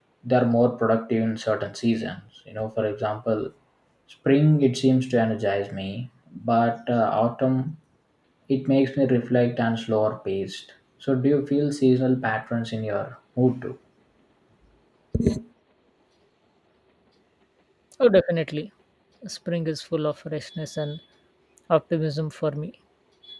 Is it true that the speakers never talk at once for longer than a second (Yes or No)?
Yes